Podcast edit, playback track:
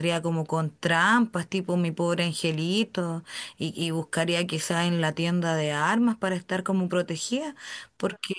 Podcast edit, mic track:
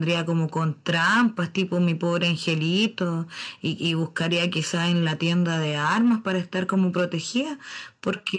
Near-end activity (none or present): none